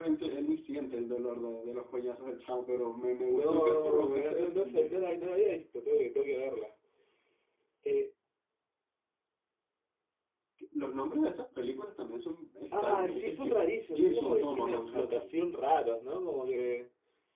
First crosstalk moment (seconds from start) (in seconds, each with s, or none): 3.4 s